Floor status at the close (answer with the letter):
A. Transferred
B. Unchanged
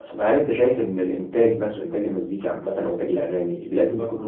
B